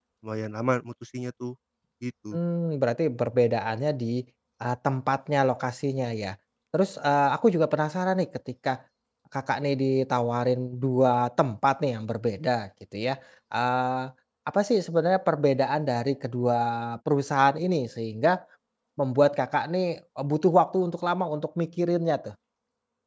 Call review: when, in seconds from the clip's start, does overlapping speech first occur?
none

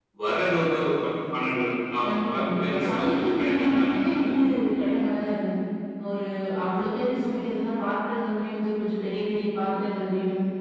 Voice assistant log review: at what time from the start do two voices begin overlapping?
2.0 s

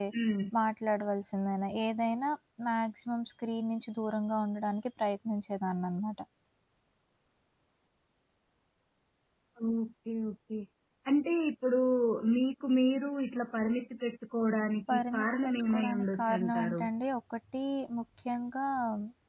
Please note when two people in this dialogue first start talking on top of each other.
14.9 s

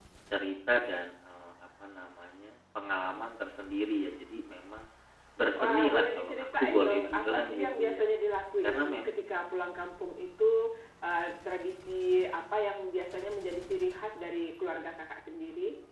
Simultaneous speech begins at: 5.6 s

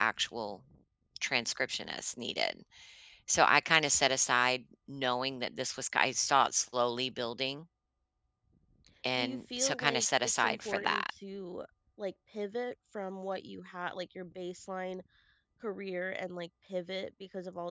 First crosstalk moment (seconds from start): 9.2 s

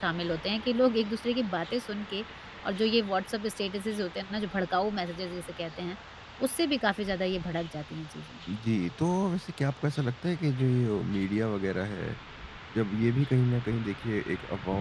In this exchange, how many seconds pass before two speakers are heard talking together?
none

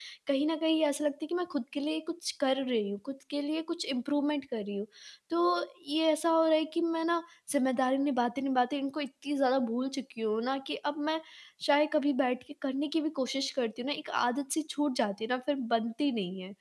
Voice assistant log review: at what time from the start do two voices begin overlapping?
none

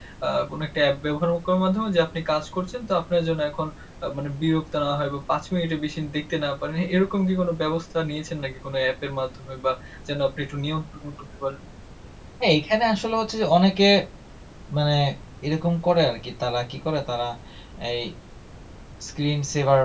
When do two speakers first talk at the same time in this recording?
none

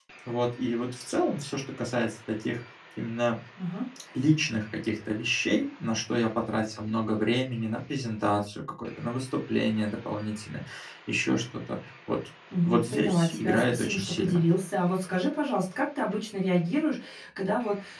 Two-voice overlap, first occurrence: 12.5 s

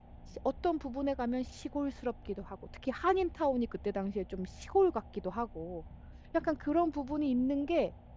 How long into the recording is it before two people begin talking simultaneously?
none

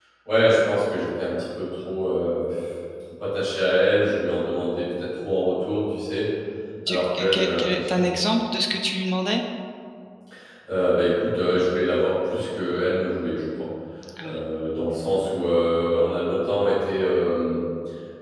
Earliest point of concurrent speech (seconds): 6.9 s

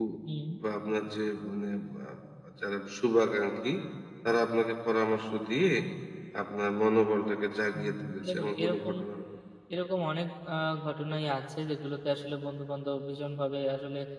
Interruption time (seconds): 7.7 s

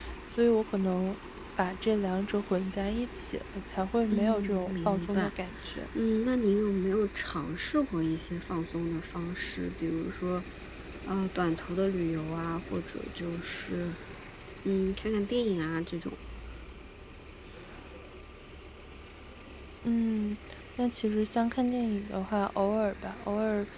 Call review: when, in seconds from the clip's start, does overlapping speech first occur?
4.1 s

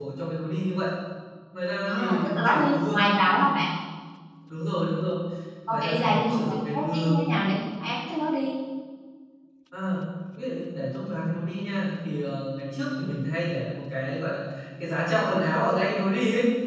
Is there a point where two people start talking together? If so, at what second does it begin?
1.9 s

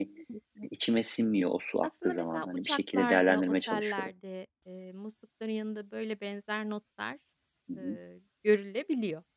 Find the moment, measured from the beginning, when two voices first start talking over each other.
2.0 s

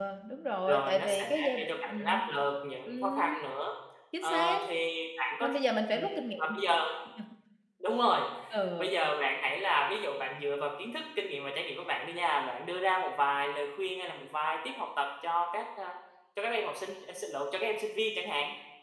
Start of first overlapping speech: 0.7 s

